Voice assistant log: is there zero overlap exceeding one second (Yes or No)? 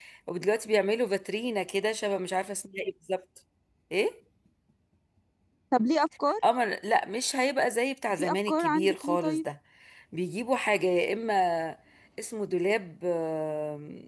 No